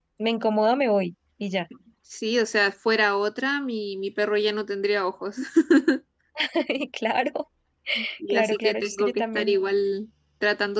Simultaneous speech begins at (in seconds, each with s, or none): 8.3 s